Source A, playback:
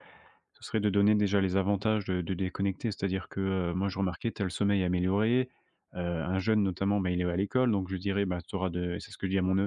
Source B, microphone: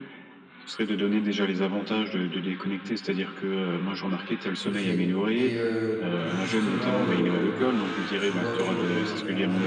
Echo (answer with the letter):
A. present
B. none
A